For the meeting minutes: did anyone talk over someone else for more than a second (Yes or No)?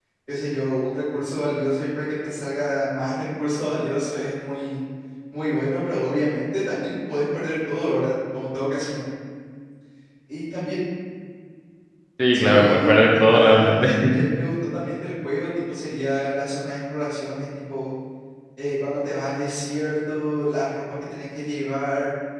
Yes